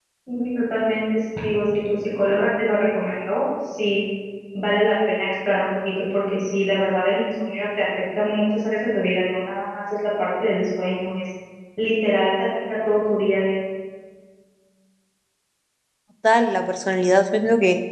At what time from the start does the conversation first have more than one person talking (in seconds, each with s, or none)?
none